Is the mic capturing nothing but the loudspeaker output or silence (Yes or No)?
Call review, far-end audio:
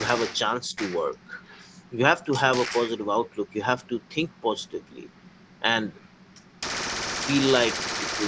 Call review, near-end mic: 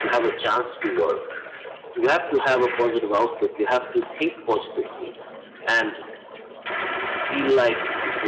Yes